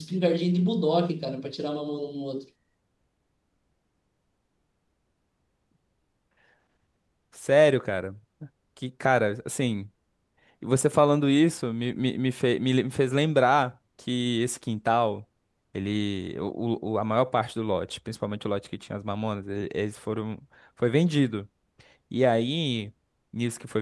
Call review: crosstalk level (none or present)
none